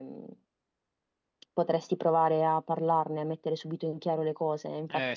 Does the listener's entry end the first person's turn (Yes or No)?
No